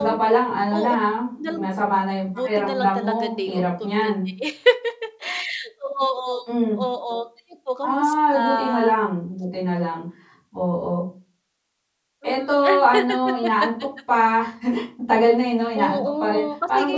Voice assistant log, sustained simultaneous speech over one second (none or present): present